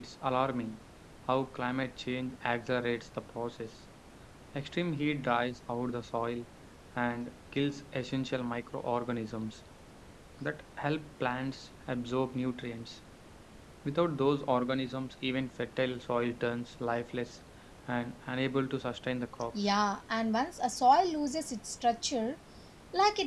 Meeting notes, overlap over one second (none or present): none